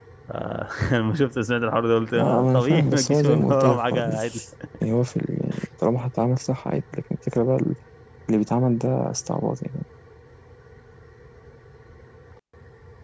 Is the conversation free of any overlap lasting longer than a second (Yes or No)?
No